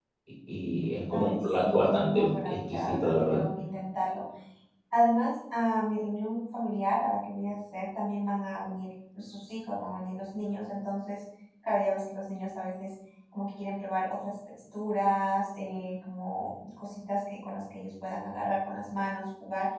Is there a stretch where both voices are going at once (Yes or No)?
Yes